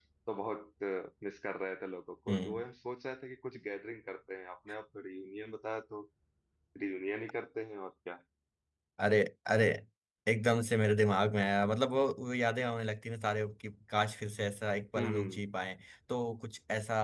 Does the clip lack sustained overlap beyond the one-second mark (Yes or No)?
Yes